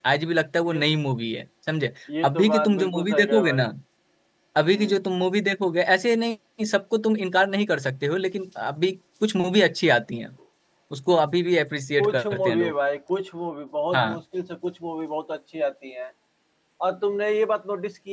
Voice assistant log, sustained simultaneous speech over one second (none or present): present